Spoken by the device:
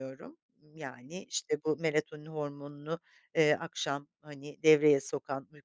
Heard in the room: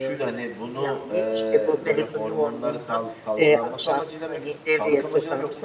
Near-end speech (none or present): present